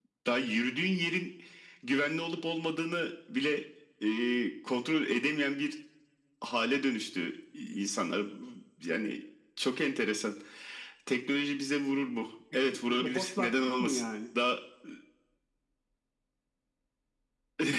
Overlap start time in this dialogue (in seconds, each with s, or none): 12.7 s